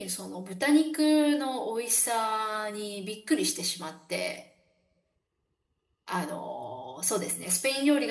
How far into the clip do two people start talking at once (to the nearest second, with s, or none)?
none